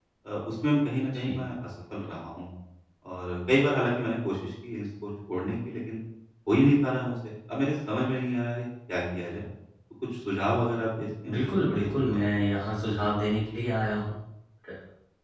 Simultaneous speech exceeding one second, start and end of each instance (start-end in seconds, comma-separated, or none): 11.3-12.5